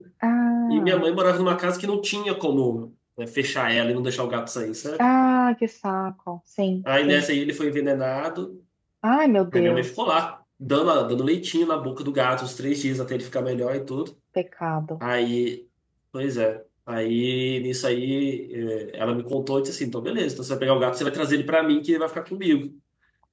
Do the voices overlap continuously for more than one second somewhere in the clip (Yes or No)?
No